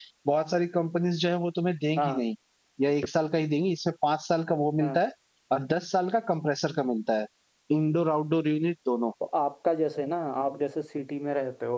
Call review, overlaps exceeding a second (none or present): none